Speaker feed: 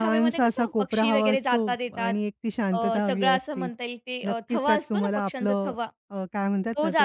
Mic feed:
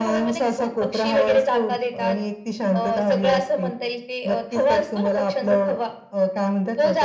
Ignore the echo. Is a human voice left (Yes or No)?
No